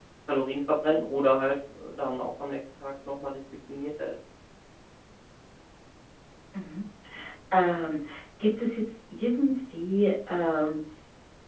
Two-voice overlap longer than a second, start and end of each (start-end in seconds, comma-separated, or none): none